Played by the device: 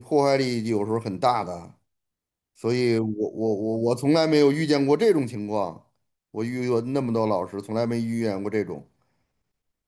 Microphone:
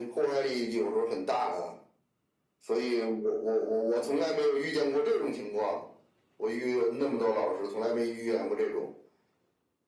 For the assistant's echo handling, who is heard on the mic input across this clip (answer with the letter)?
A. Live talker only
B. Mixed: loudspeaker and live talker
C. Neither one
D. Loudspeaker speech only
D